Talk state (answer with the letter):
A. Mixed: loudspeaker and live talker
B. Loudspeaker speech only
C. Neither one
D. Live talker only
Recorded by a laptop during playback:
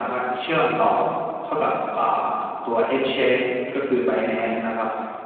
B